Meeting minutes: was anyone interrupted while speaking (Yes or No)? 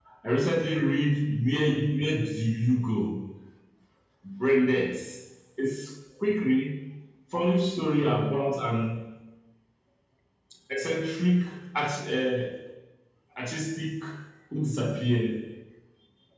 No